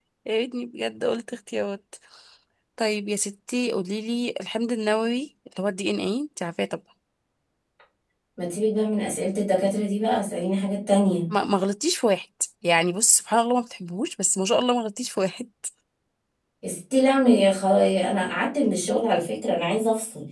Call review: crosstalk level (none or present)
none